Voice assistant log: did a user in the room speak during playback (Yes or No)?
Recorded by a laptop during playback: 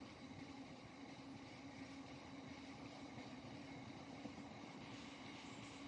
No